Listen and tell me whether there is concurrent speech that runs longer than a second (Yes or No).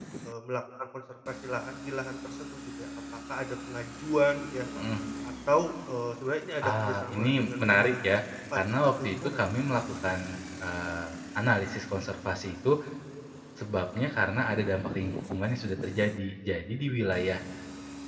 Yes